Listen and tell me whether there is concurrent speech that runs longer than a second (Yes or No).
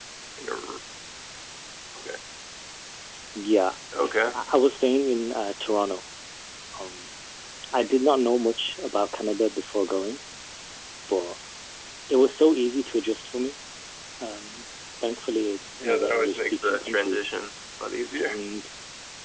Yes